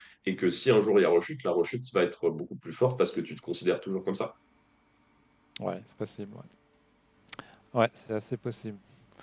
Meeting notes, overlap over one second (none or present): none